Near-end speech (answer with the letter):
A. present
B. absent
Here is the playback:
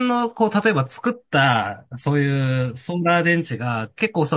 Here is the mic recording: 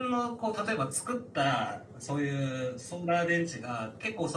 B